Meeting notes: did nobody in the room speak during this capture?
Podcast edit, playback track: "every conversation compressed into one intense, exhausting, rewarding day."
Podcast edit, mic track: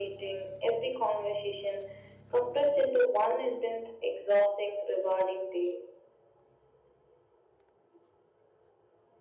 Yes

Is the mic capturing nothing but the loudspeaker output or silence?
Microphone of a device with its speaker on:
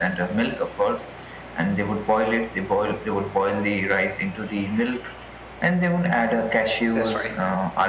No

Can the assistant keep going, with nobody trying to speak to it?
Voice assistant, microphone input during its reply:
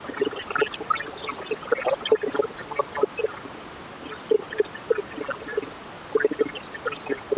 Yes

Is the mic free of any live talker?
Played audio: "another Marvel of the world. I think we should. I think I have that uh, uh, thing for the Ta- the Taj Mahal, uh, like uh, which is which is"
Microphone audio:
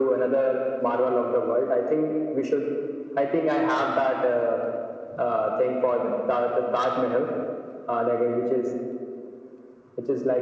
Yes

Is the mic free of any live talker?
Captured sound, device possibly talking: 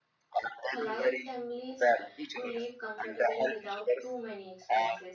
No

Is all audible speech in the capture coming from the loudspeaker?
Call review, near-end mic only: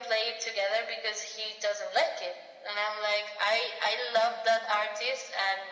Yes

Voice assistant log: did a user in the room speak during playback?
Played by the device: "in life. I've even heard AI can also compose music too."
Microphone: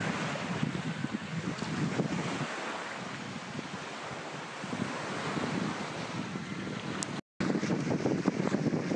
No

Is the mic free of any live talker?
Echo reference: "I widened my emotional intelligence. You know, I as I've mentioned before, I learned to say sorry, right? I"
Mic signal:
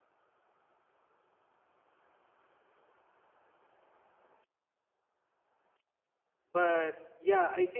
No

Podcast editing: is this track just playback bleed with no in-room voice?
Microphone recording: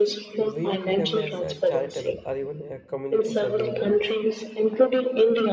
No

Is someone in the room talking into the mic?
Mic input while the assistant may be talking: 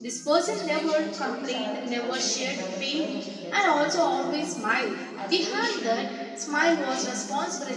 Yes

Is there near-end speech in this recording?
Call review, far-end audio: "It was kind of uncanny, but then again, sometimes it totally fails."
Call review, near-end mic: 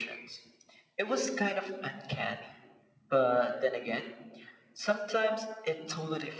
No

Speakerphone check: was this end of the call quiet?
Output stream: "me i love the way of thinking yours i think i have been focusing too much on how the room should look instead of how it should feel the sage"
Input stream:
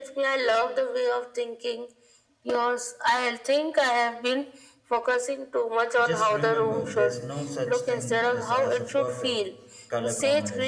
No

